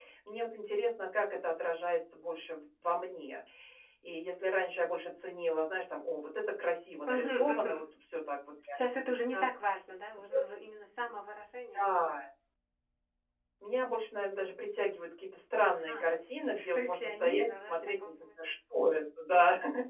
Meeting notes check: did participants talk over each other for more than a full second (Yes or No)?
Yes